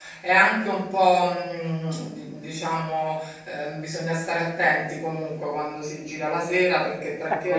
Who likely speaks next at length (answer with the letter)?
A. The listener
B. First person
A